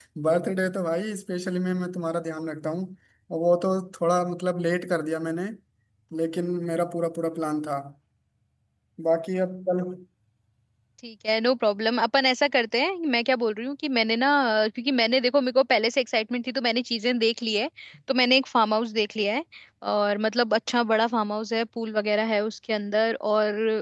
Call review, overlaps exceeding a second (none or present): none